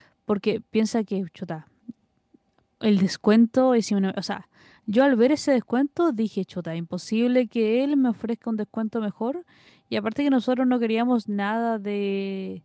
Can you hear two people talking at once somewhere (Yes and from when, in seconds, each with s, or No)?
No